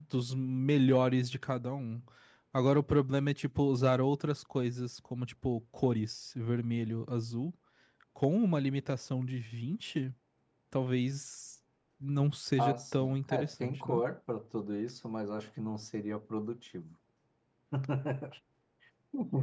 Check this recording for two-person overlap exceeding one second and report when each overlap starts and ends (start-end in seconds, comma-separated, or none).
12.6-14.0